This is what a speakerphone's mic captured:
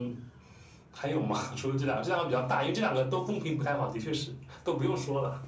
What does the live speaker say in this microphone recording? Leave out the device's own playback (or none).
none